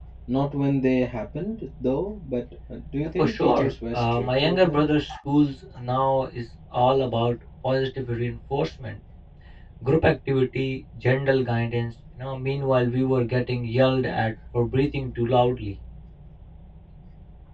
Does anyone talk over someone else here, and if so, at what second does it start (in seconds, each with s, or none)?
3.2 s